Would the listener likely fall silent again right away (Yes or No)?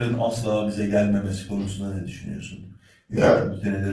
Yes